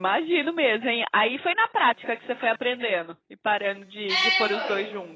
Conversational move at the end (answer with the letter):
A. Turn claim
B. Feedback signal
A